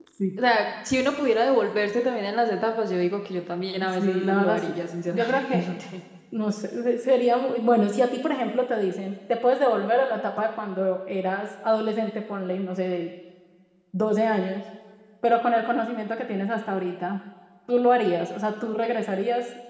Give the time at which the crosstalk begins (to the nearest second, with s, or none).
4 s